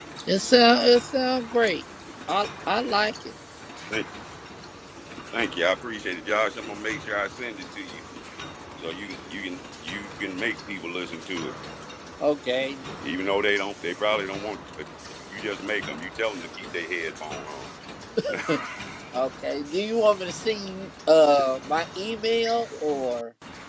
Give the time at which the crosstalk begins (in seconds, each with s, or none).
none